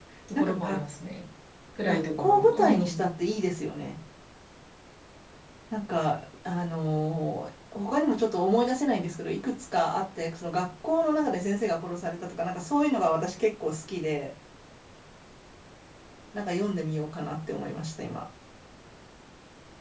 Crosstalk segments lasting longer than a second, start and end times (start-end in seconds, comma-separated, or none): 1.9-3.1